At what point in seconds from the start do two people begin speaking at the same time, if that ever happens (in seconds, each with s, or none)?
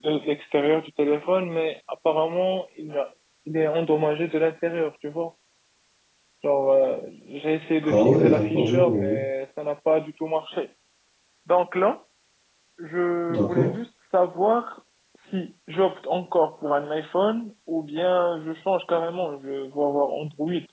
7.8 s